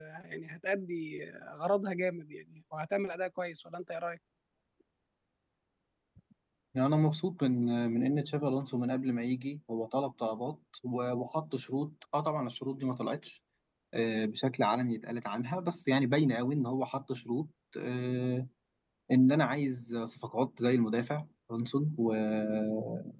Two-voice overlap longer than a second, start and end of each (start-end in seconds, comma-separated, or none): none